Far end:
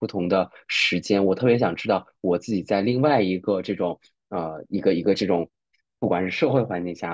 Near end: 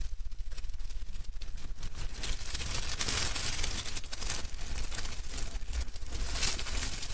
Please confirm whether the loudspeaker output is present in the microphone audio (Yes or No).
No